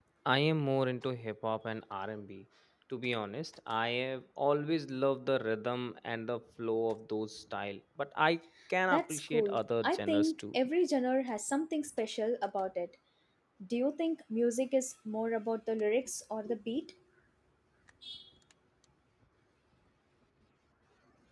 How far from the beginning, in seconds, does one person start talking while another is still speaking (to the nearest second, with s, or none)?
9 s